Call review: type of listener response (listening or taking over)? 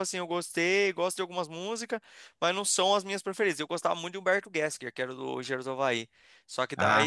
listening